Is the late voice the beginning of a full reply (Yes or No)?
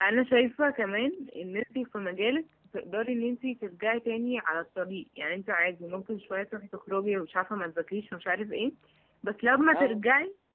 No